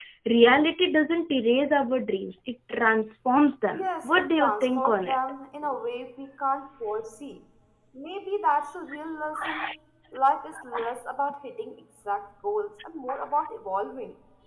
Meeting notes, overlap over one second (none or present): present